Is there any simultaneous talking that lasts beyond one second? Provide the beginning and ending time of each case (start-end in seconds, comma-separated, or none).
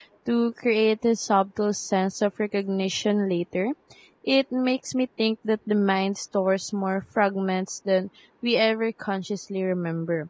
none